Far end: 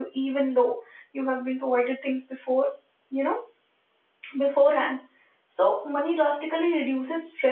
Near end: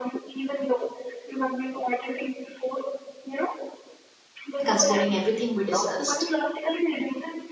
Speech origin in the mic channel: both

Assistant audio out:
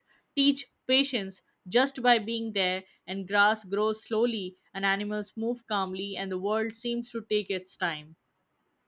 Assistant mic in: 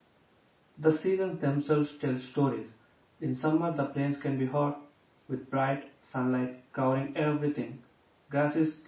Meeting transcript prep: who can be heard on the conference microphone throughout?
user only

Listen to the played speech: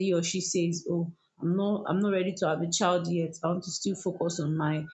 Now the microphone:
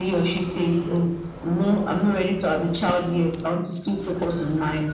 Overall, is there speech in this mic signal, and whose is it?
echo only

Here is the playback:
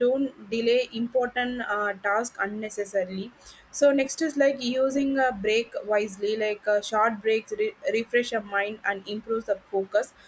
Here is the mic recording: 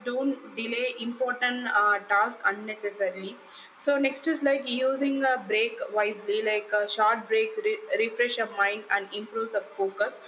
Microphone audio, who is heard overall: echo only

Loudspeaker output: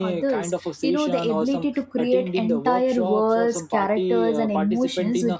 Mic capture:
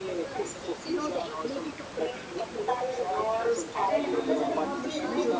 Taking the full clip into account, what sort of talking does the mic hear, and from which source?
both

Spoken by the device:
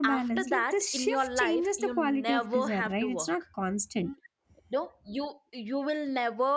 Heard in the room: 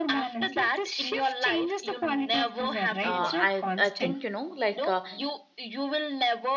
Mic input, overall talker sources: both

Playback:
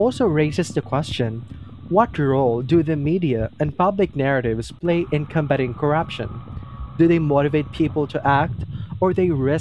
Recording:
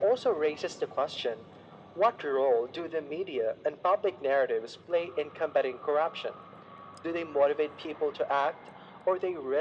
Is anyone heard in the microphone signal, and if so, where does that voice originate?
echo only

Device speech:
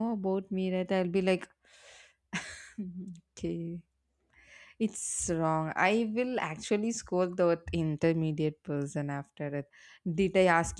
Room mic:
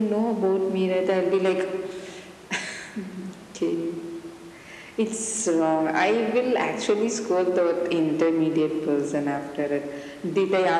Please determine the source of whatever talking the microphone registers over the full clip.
echo only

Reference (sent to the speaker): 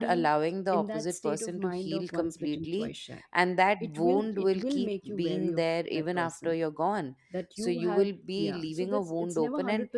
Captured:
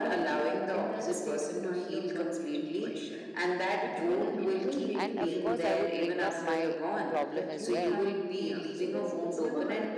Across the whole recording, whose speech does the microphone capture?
both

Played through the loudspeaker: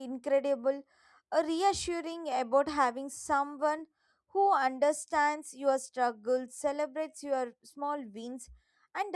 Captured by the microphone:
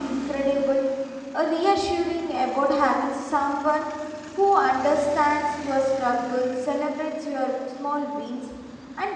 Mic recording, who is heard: echo only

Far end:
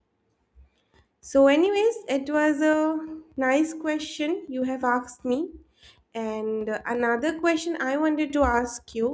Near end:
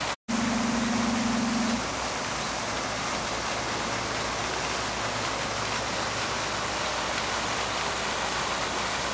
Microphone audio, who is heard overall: neither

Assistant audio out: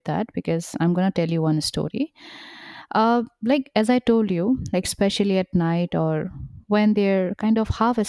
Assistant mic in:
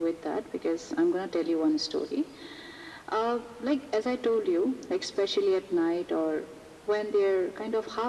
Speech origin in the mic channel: echo only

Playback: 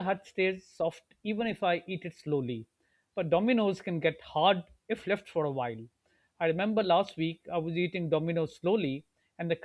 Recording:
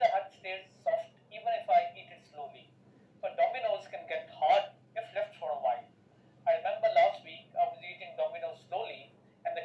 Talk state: echo only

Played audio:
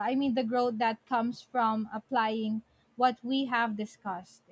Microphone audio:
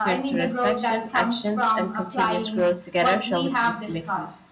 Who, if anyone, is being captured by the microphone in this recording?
both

